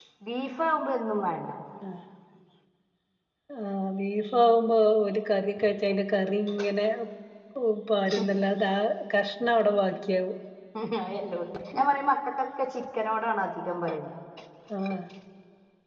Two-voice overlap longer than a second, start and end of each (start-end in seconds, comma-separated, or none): none